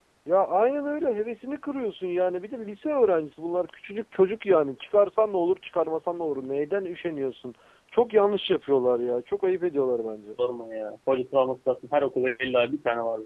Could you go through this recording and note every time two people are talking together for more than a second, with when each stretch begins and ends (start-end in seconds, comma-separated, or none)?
none